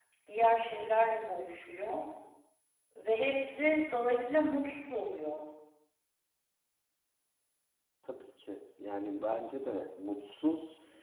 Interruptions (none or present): none